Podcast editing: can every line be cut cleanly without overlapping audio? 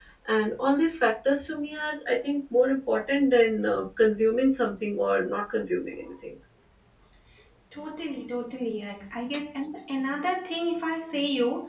Yes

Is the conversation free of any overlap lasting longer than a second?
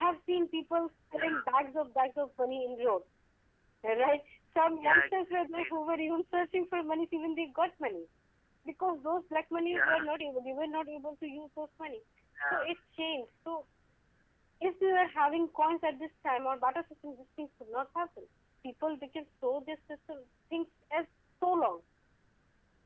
Yes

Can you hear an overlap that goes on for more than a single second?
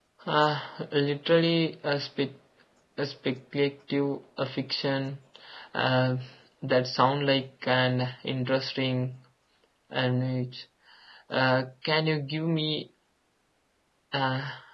No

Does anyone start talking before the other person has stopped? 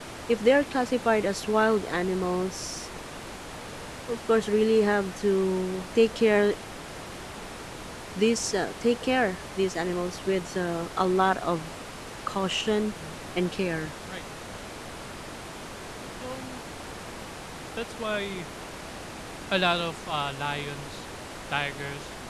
No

